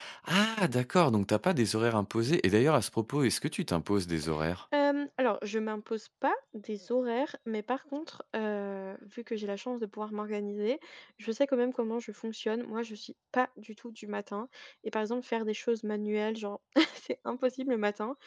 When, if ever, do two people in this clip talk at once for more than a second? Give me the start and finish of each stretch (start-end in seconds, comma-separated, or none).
none